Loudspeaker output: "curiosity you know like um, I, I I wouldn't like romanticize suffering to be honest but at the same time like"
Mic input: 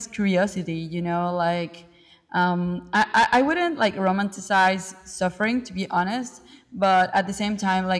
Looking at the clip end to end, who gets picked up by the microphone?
echo only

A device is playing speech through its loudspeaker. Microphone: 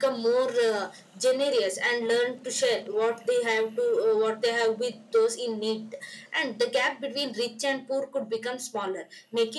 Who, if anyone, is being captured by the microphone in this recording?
echo only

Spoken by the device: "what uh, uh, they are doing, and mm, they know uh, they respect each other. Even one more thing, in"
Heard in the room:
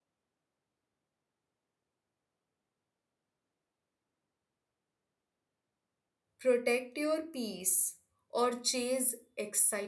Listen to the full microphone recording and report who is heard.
user only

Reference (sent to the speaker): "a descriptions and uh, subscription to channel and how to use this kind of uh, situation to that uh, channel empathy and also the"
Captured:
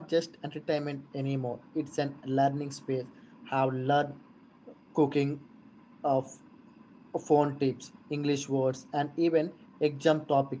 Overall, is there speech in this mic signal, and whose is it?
user only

